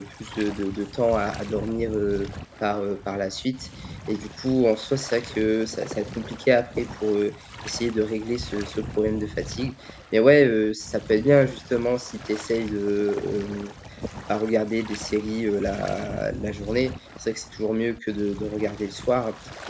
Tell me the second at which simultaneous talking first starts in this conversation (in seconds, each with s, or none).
none